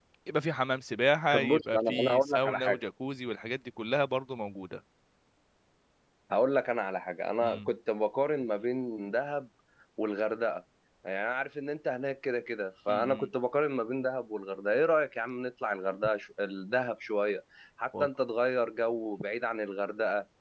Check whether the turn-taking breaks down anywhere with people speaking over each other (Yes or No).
Yes